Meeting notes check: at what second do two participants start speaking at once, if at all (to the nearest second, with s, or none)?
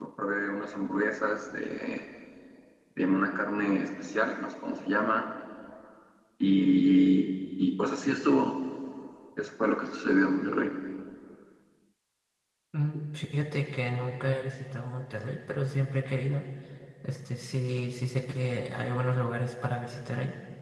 none